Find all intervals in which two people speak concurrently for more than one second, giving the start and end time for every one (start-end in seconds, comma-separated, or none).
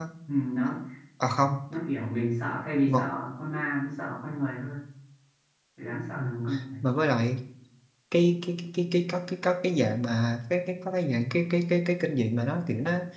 none